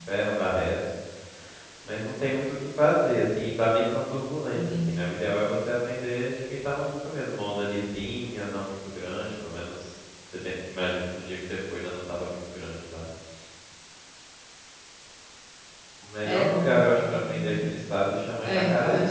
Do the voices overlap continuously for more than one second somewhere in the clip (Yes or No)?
Yes